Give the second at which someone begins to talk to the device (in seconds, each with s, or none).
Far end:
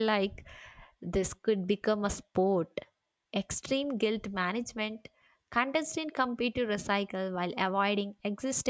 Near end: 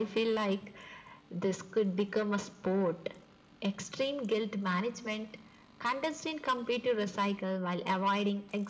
none